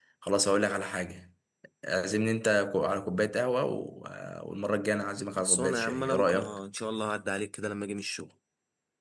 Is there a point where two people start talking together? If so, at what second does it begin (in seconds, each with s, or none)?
5.3 s